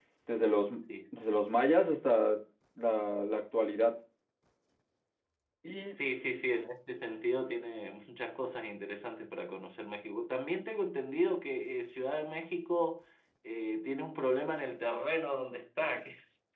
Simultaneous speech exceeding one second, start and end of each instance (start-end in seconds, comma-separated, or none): none